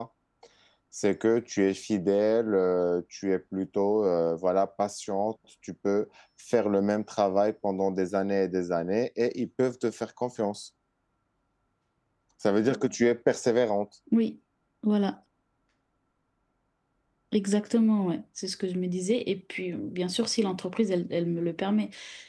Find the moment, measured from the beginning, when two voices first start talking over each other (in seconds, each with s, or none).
none